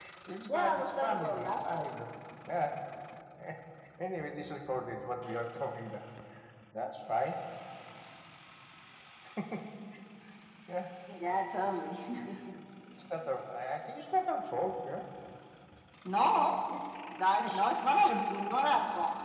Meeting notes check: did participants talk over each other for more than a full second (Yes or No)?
Yes